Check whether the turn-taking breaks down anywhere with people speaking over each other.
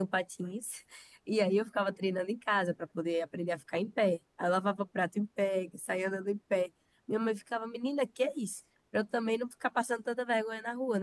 No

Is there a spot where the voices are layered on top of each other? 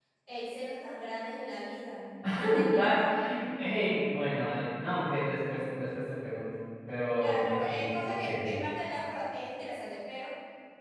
Yes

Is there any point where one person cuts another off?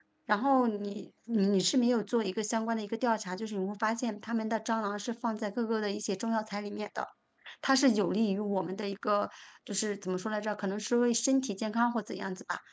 No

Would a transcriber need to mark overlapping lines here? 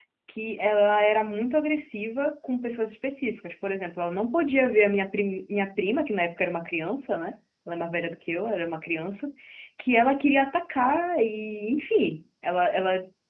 No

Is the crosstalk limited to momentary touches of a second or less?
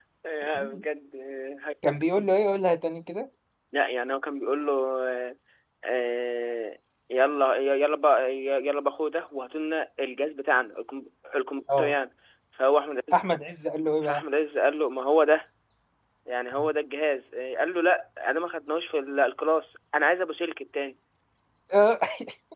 Yes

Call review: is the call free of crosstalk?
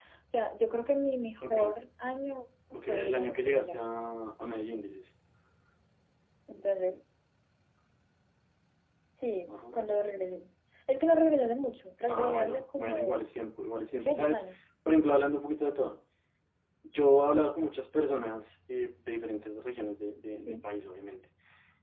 No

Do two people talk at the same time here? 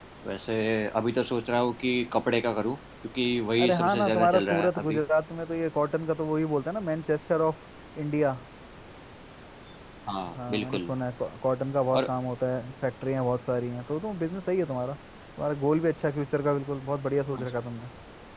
Yes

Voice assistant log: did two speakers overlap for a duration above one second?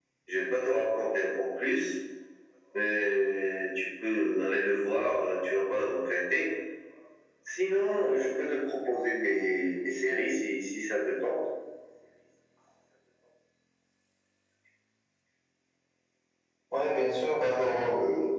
No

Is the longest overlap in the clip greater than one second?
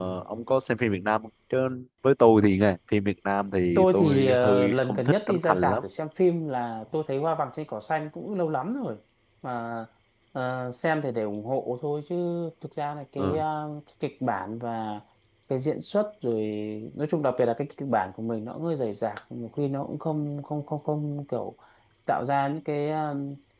Yes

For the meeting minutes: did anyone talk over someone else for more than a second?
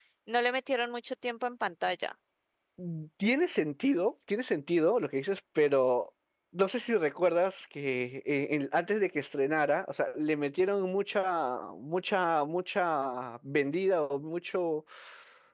No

